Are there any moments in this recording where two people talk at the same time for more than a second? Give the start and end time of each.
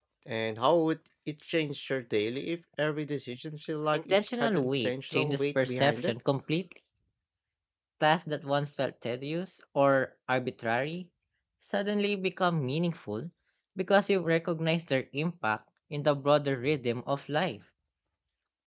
3.9-6.1

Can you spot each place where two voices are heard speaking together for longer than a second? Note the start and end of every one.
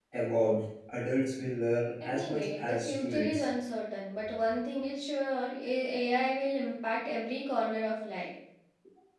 2.1-3.5

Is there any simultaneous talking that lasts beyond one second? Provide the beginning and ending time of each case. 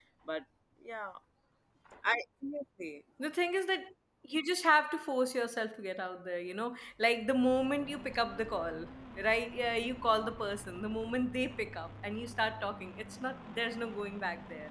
none

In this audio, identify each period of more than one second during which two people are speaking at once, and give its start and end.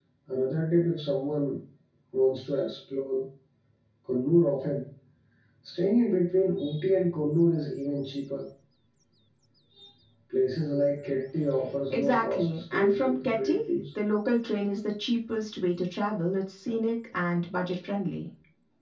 11.9-13.6

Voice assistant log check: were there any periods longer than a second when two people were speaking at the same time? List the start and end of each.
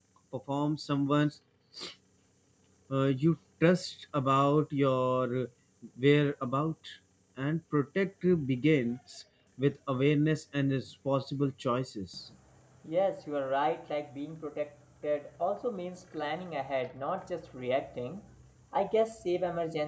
none

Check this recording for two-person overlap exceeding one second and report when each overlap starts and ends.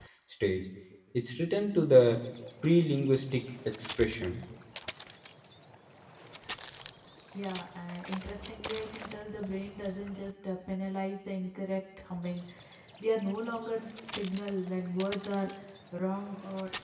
none

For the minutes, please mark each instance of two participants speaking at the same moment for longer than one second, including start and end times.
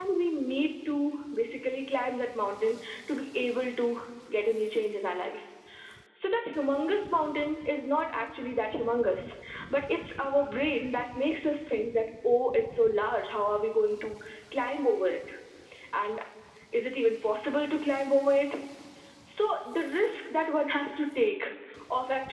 none

